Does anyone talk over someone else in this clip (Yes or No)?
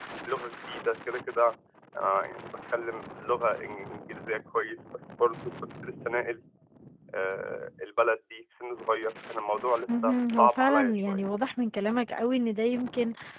Yes